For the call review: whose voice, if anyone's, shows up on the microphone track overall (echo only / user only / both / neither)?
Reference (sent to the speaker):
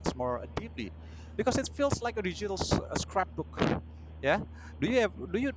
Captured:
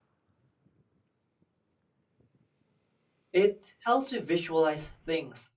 user only